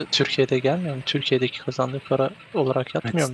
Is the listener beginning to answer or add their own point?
Yes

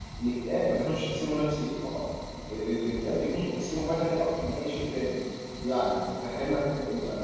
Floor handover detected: No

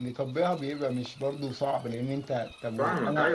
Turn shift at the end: Yes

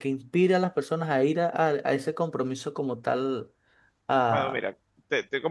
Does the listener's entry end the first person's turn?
Yes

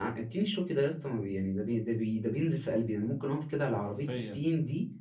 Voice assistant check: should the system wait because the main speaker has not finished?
Yes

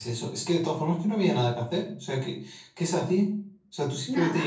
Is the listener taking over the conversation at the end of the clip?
No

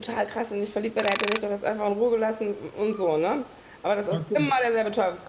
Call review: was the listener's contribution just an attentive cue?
Yes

